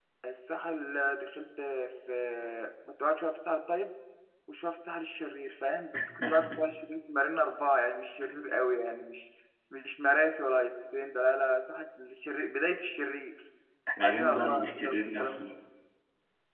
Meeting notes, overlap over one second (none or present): present